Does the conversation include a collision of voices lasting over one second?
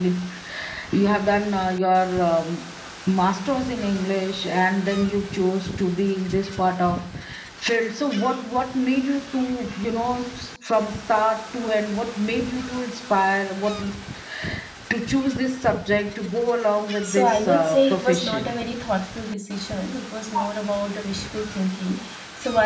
Yes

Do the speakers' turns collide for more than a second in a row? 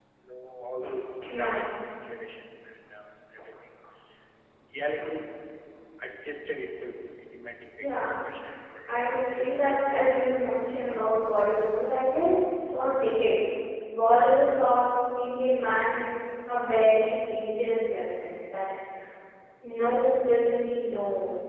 Yes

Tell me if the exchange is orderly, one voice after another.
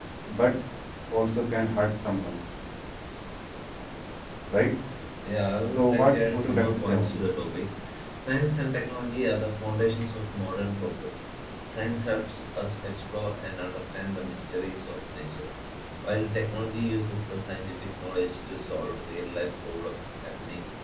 No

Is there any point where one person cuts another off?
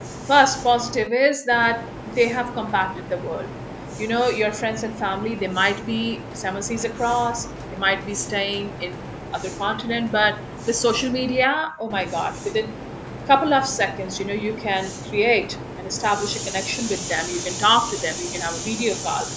No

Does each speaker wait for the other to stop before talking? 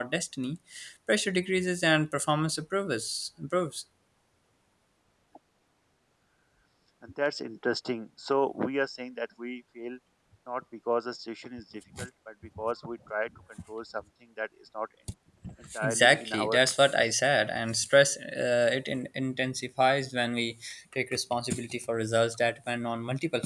No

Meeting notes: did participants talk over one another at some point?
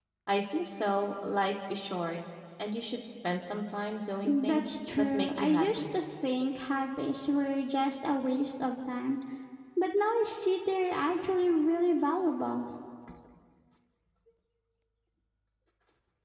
Yes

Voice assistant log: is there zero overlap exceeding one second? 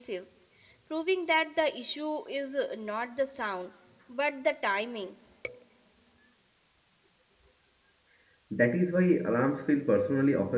Yes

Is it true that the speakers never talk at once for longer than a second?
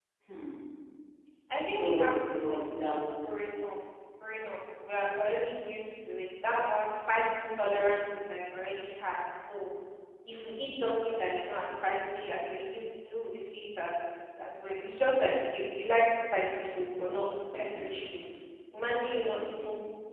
No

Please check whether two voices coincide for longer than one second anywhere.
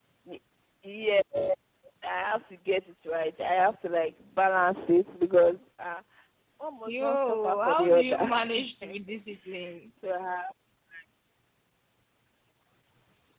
Yes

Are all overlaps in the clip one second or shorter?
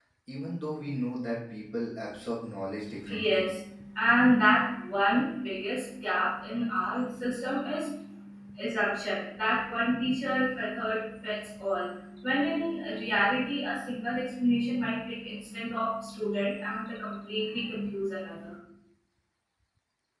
Yes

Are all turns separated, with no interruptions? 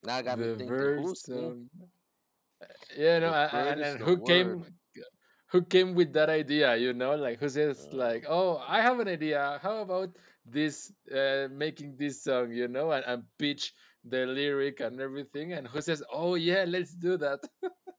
No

